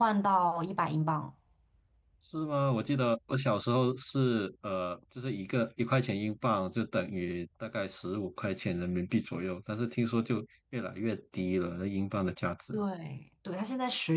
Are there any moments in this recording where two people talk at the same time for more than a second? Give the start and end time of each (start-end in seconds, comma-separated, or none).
none